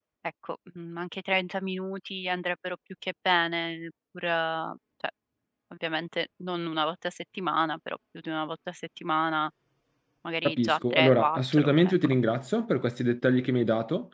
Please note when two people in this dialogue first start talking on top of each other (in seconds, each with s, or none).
10.4 s